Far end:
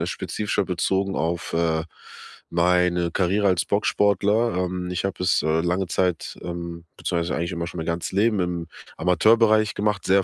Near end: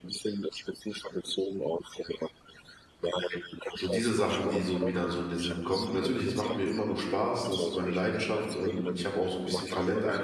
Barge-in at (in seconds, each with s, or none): 3.8 s